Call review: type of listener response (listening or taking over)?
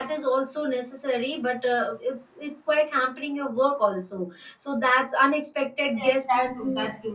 taking over